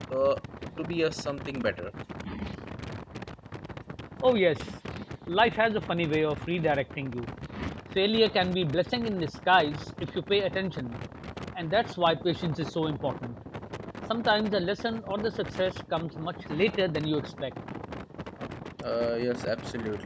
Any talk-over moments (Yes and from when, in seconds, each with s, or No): No